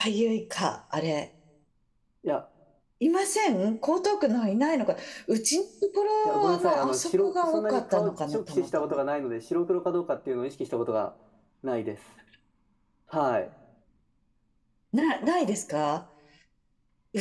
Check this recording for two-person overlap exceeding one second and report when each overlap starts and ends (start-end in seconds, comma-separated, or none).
6.2-9.0